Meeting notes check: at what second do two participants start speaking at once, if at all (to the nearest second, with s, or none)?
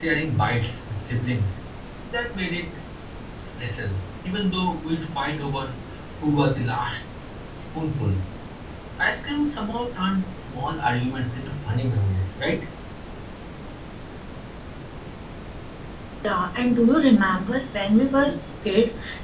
none